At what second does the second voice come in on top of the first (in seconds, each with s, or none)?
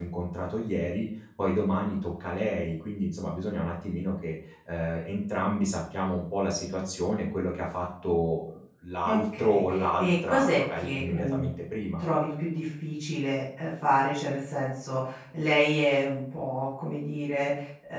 9.0 s